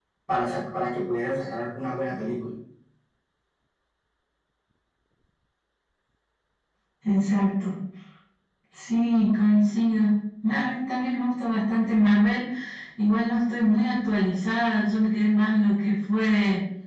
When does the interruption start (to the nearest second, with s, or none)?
none